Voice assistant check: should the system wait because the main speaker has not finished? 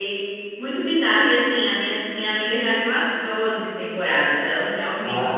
No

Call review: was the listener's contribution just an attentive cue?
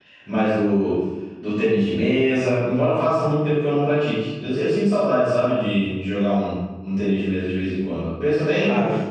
Yes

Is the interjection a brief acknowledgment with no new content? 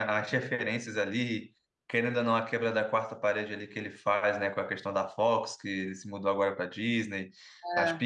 Yes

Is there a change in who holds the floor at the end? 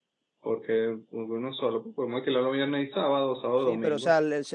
Yes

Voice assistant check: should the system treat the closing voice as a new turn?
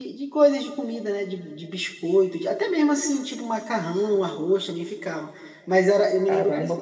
Yes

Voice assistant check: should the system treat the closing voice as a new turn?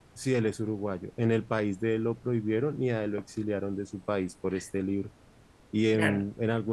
No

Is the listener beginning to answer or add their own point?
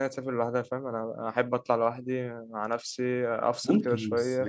Yes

